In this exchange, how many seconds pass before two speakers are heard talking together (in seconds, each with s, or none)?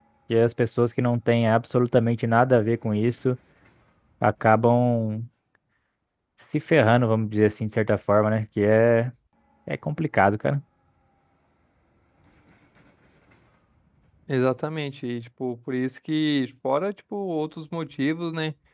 none